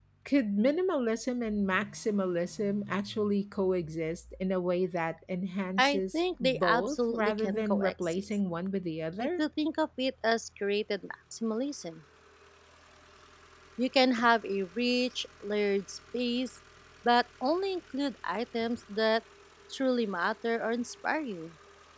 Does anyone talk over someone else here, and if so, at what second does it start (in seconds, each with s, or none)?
5.8 s